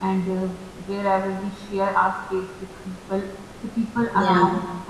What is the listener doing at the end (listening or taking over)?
listening